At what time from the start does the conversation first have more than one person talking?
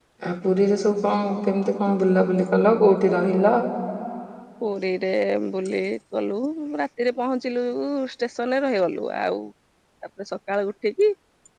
none

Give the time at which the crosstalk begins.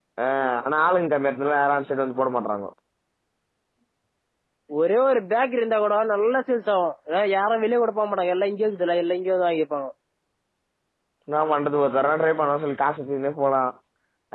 none

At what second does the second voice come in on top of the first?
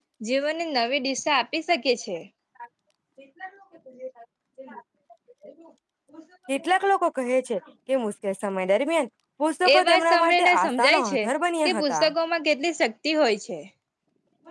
10 s

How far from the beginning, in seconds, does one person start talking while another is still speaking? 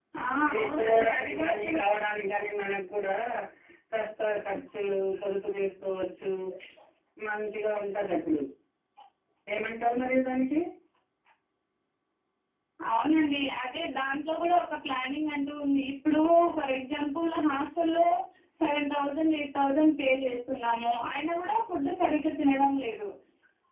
1 s

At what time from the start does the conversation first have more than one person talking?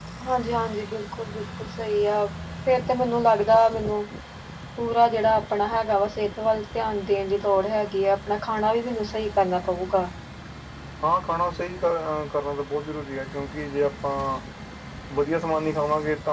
none

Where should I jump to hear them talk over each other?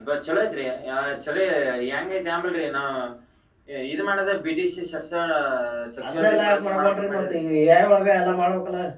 6 s

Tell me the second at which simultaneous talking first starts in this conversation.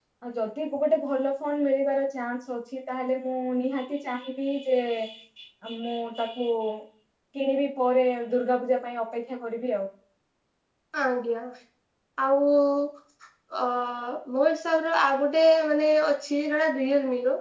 none

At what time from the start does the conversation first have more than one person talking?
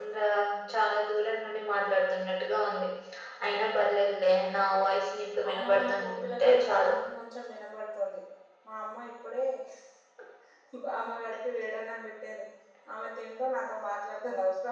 5 s

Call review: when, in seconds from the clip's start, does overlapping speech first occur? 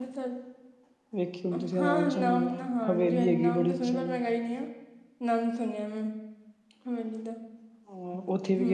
2 s

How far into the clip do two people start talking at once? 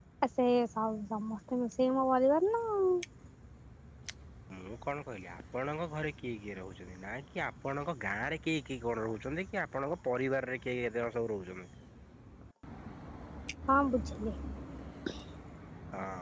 none

